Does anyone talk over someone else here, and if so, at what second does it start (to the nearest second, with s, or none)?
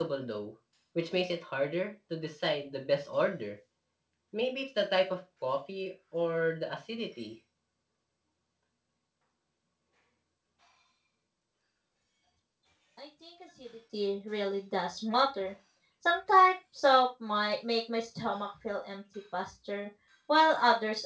none